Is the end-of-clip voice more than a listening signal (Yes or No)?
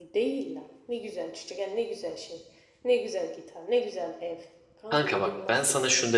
Yes